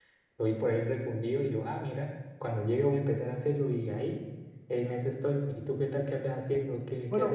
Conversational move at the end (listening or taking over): taking over